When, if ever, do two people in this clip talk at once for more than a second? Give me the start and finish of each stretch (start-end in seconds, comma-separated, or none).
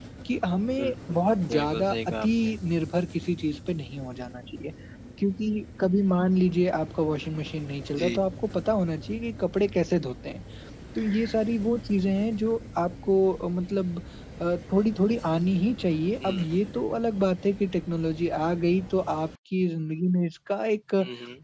0.8-2.5